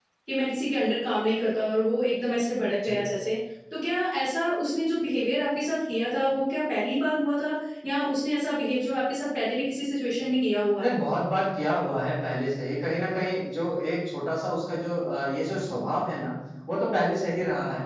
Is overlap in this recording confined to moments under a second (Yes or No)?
Yes